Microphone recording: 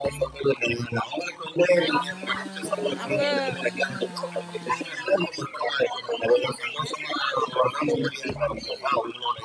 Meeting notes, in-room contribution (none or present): present